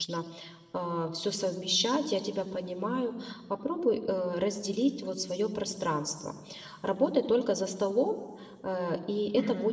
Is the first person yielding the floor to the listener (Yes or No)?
No